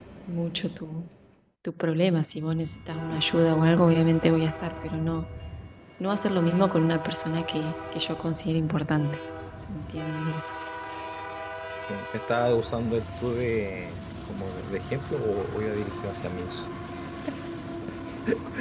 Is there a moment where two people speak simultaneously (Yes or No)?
No